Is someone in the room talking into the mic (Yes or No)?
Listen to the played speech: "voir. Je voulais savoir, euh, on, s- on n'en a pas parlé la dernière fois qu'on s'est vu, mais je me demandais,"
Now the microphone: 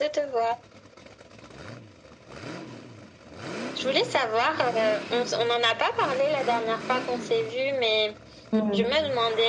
Yes